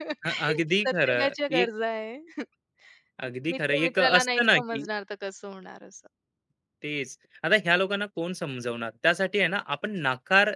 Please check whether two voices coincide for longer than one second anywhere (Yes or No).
Yes